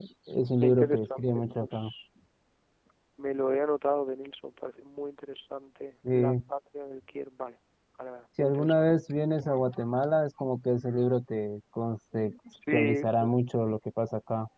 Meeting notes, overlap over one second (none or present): present